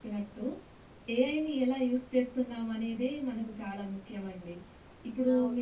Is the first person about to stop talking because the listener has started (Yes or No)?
No